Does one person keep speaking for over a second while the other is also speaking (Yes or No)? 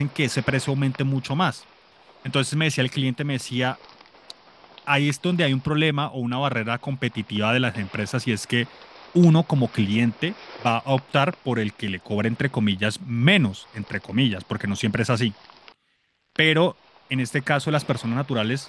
No